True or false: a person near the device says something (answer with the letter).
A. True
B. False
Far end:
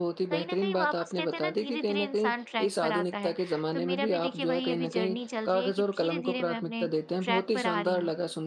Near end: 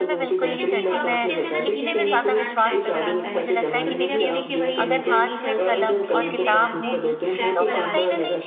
A